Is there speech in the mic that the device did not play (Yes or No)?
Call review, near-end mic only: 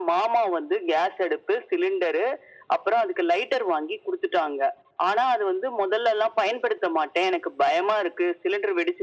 No